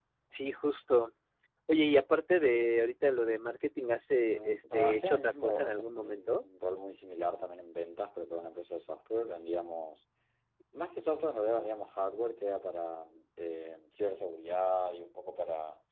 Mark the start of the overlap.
4.2 s

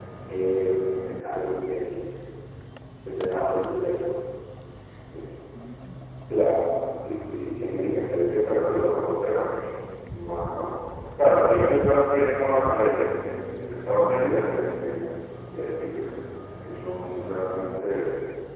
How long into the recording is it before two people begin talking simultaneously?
none

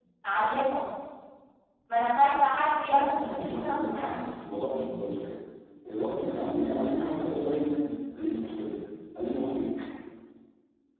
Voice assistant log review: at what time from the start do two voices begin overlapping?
2.9 s

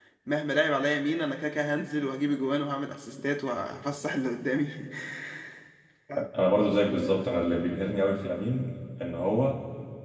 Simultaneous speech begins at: none

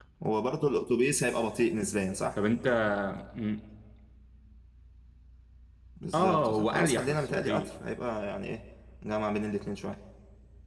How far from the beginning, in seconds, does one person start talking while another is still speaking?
6.1 s

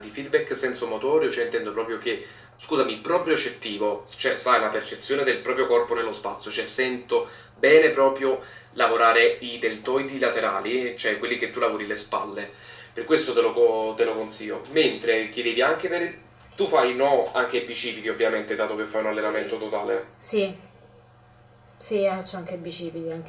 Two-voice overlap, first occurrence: none

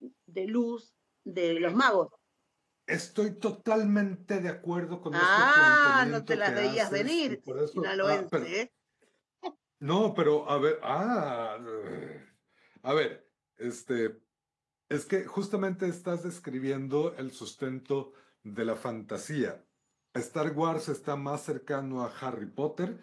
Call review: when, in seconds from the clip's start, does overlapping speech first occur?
5.1 s

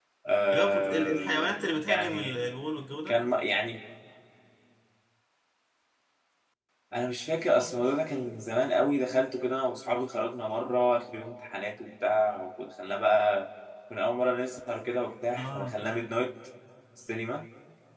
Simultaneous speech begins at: 0.5 s

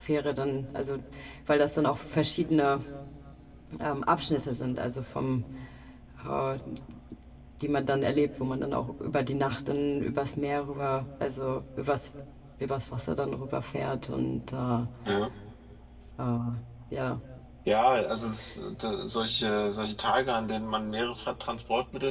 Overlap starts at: none

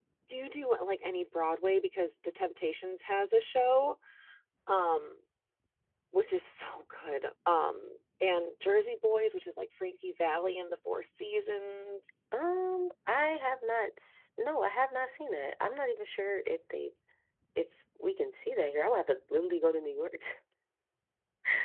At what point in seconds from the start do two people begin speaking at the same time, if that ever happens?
none

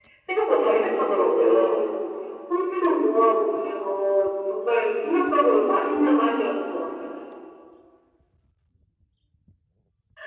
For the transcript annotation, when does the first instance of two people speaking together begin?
0.6 s

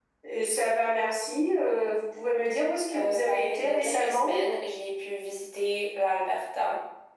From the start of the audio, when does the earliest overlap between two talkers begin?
2.9 s

